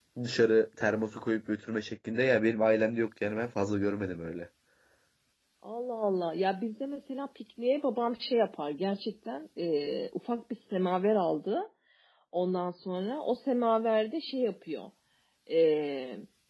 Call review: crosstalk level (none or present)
none